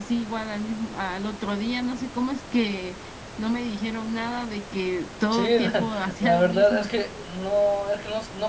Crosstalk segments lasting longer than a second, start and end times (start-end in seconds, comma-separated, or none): 5.3-6.9